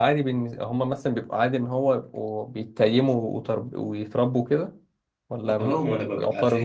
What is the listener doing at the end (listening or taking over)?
taking over